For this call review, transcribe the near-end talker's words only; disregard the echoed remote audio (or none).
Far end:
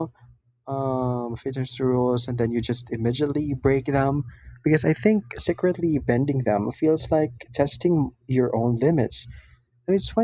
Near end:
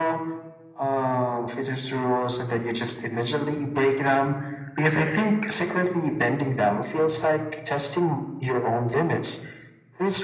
none